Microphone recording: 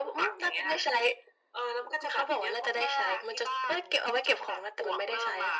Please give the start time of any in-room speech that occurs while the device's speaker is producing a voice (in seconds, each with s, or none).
none